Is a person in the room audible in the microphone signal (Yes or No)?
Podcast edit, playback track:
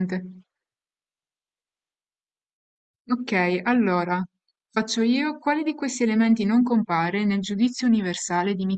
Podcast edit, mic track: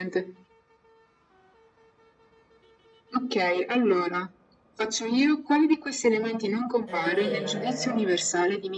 Yes